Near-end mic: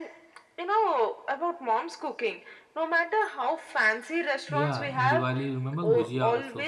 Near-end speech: present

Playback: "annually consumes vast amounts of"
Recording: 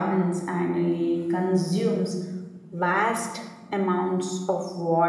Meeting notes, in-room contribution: none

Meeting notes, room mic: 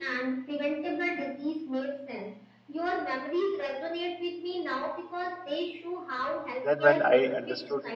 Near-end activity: present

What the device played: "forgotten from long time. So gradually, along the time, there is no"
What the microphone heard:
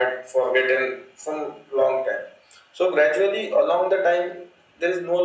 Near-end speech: none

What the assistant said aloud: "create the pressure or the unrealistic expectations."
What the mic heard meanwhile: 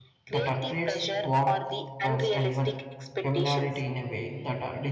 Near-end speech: present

